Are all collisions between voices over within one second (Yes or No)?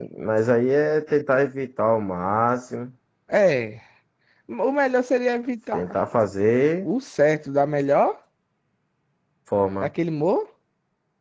Yes